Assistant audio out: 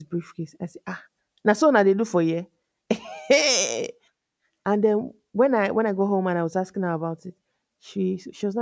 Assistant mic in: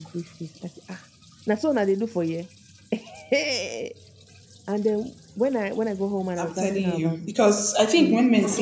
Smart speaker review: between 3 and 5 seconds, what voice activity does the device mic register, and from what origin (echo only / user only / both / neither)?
echo only